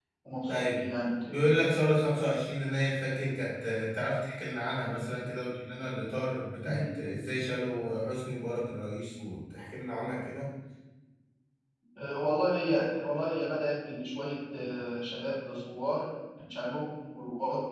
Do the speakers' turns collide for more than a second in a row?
No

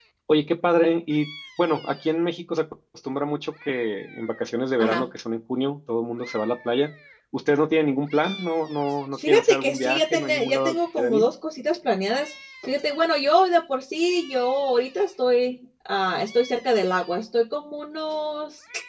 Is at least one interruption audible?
Yes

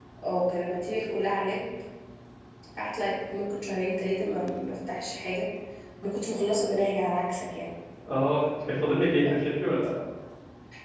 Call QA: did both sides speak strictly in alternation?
Yes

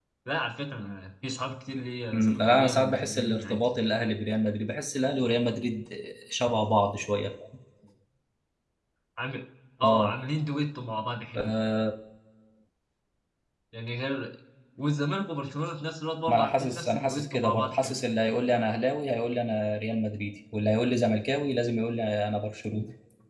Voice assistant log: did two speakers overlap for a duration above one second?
Yes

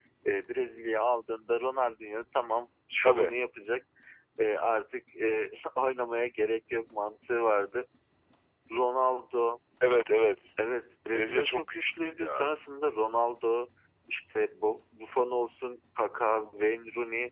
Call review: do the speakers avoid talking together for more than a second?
No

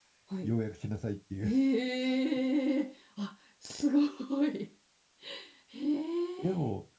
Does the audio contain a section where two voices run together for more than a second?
No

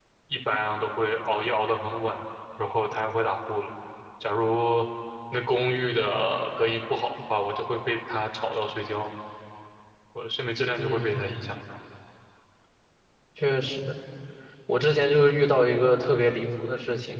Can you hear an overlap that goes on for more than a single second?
No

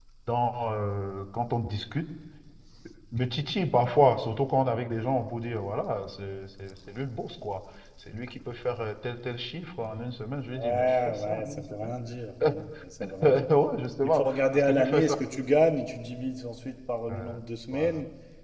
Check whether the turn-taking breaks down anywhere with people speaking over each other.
Yes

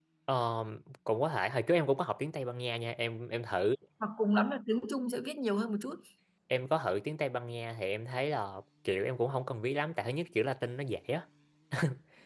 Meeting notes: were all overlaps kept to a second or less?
Yes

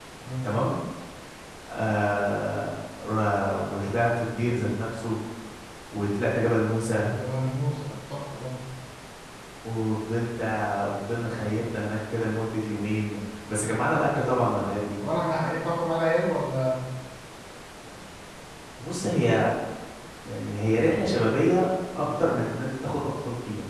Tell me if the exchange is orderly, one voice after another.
Yes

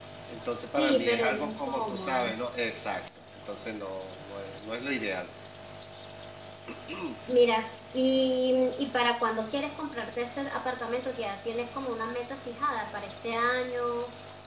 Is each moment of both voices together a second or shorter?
No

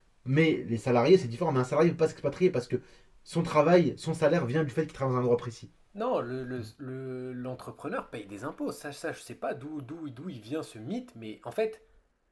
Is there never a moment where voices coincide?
Yes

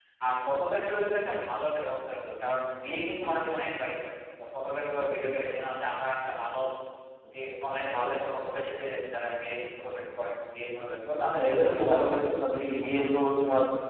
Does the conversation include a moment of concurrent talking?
Yes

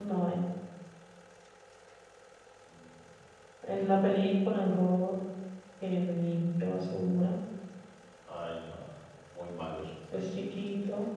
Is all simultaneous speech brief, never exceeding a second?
Yes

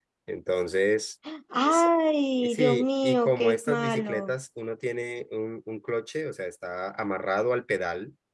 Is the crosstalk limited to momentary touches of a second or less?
No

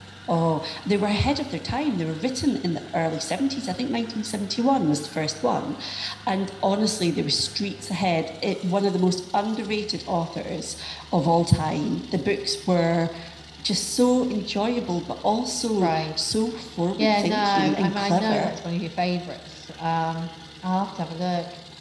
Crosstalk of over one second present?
Yes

